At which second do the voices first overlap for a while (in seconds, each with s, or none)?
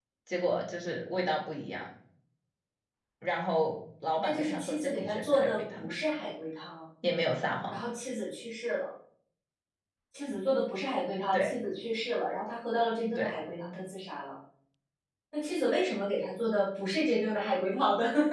4.2 s